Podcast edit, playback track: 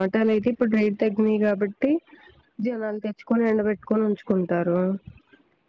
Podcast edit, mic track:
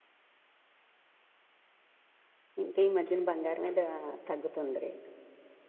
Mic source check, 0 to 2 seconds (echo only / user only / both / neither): neither